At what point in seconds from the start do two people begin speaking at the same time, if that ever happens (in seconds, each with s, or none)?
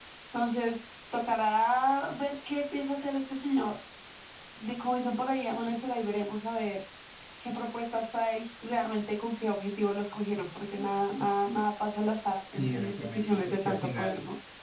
12.6 s